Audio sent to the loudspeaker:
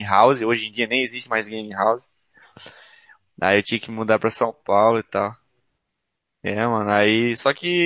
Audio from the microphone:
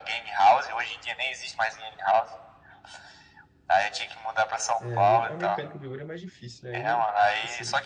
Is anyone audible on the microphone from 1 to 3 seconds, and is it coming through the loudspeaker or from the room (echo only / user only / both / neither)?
echo only